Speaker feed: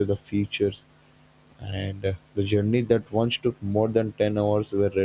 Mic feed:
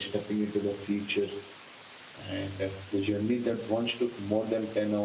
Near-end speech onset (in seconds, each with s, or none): none